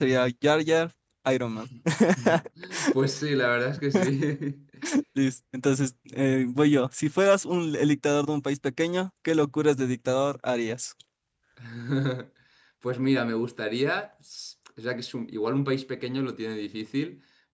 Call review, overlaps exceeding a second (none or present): none